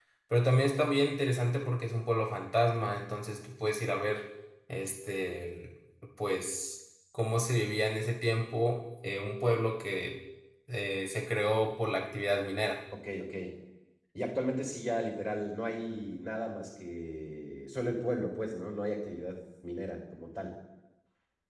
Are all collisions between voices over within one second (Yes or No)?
Yes